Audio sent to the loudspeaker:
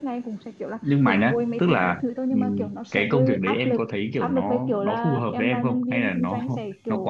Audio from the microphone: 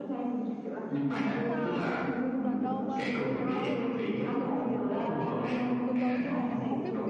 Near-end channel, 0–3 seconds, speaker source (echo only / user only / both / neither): both